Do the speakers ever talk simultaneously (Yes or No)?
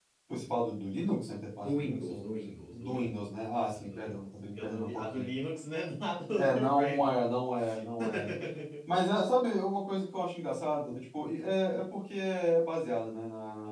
Yes